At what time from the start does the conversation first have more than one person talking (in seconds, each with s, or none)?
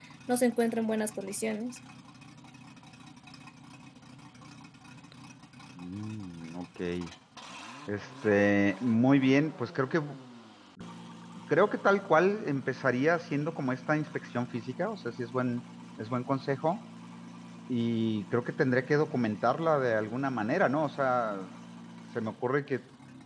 none